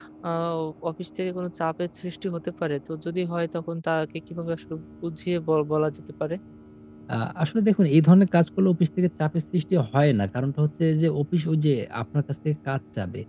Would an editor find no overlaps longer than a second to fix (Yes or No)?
Yes